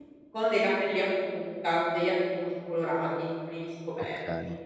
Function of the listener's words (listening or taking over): taking over